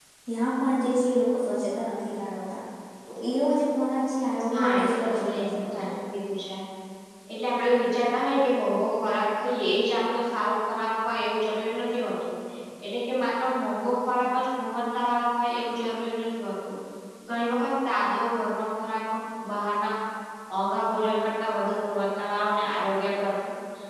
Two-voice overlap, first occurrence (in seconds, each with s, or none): 4.5 s